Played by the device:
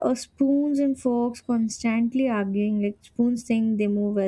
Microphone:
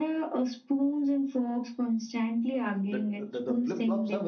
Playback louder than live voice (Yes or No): Yes